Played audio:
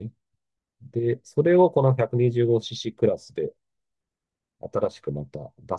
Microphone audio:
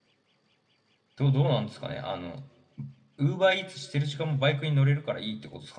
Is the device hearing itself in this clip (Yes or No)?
No